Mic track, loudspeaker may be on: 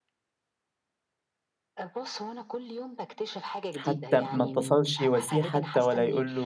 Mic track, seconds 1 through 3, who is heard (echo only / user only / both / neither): echo only